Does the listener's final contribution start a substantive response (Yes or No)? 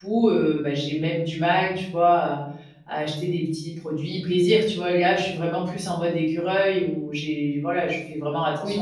Yes